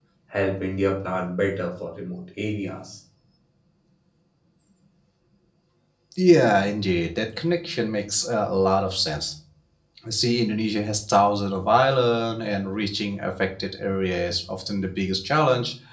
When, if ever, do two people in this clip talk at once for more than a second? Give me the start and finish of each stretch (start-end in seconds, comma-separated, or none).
none